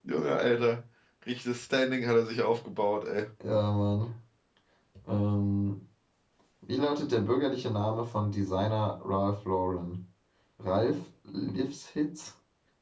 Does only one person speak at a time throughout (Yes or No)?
Yes